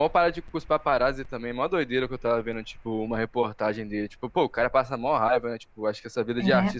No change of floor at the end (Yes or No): Yes